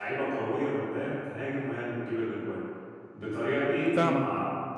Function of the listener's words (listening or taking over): listening